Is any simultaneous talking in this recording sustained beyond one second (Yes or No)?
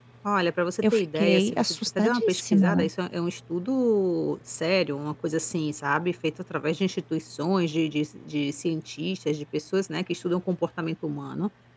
Yes